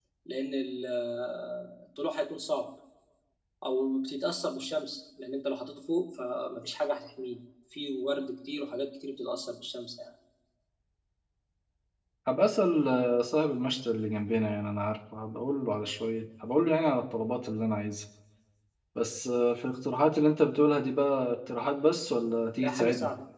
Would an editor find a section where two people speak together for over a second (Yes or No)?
No